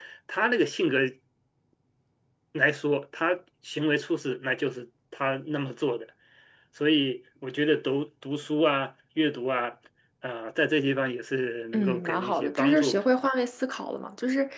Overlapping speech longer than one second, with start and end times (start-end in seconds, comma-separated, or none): 11.7-13.0